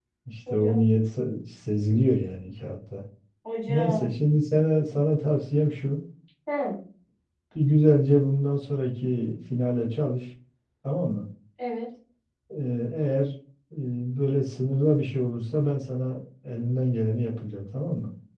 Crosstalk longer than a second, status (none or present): none